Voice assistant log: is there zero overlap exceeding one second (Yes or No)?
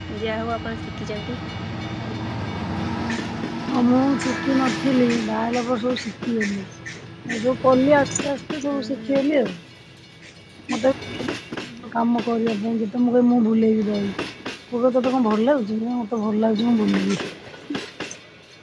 Yes